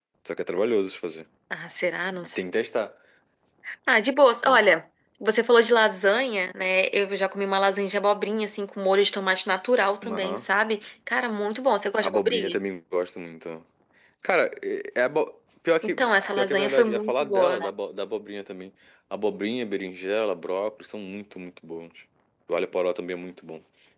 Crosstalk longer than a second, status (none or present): present